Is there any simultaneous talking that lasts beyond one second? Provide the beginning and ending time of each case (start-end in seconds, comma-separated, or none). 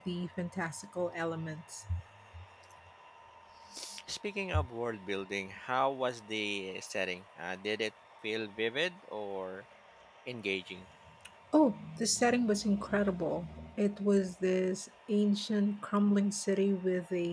none